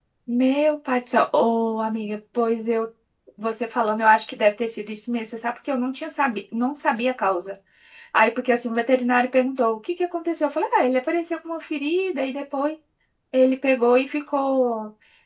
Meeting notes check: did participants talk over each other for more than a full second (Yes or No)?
No